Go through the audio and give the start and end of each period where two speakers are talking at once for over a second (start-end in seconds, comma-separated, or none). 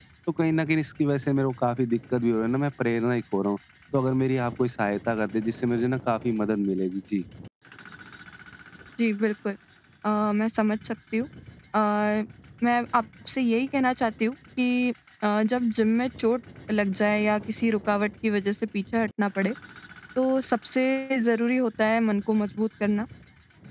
none